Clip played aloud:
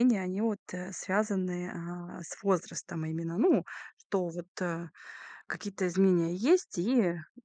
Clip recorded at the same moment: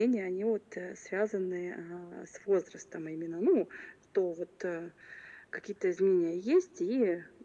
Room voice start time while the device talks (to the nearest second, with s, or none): none